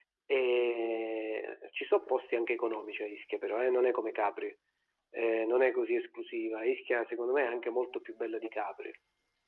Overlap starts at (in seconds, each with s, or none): none